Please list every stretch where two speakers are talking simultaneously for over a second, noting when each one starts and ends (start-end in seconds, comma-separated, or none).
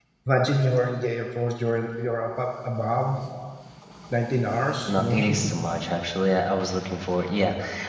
none